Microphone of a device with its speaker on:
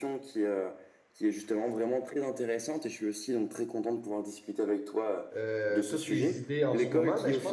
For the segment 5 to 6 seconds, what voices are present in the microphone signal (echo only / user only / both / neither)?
both